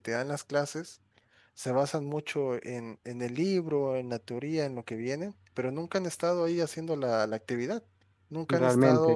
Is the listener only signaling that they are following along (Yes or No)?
Yes